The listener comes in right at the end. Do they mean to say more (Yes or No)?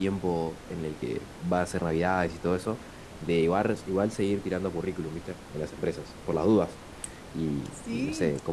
No